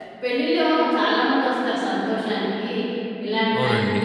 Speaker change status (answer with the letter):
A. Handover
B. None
B